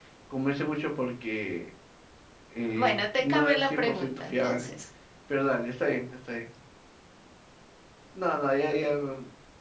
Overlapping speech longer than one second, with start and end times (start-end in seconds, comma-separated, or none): 2.8-4.7